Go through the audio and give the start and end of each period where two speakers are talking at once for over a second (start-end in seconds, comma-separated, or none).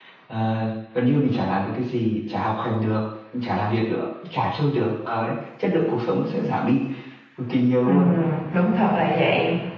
none